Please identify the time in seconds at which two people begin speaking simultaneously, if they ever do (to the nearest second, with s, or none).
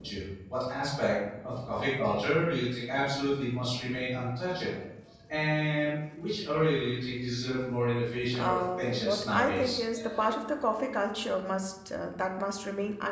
8 s